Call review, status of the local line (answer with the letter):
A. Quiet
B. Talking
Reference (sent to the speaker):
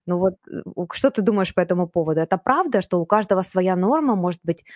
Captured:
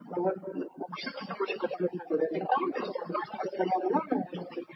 A